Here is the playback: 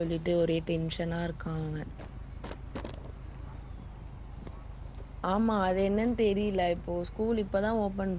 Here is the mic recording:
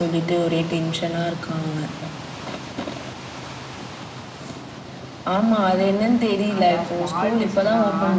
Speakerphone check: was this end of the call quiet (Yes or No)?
No